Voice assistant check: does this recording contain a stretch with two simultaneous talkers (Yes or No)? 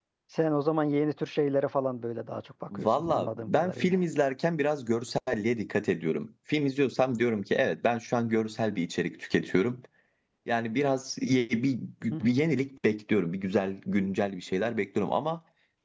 Yes